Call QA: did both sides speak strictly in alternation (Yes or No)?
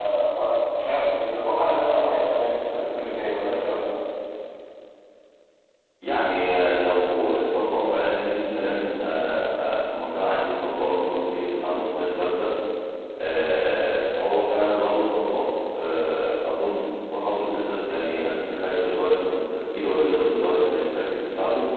Yes